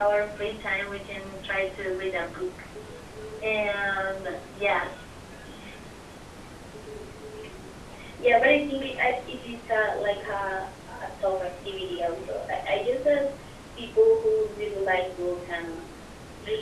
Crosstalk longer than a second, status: none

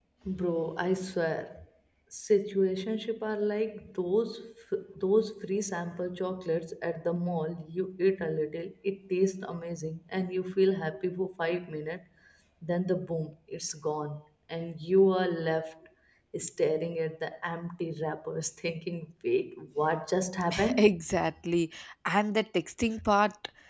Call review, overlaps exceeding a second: none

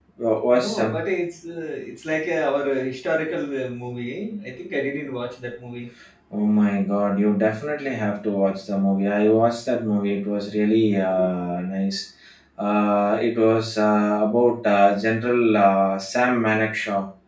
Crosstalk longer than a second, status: none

